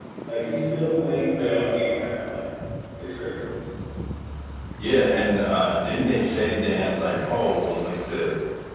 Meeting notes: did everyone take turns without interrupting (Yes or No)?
Yes